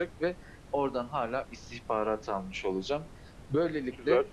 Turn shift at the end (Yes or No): No